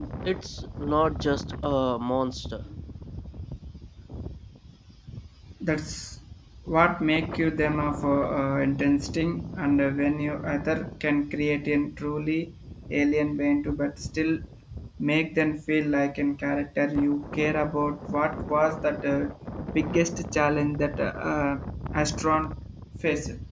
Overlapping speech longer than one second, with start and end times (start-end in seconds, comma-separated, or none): none